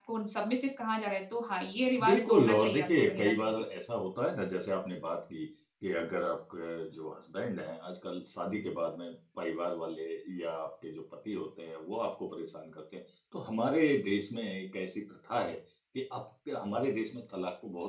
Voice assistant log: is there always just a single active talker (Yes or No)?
No